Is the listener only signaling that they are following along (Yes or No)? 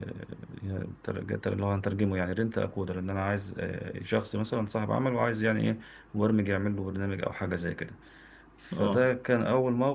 Yes